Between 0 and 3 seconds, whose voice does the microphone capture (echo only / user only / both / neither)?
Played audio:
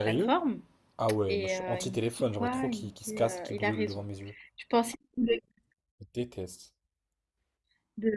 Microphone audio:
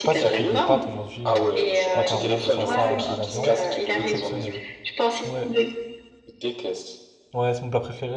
both